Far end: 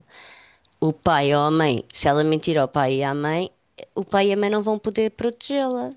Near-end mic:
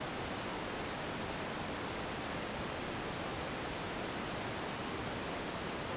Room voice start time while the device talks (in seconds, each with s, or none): none